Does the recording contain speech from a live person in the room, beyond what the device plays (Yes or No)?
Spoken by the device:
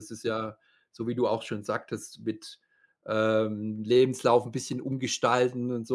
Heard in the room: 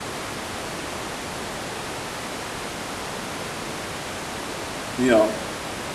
Yes